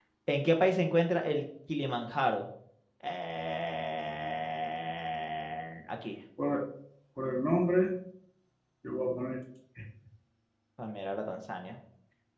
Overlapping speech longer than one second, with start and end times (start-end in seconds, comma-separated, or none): none